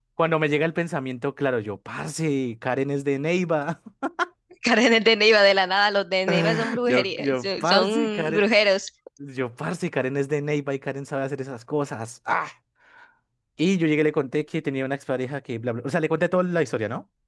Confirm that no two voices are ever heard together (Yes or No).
No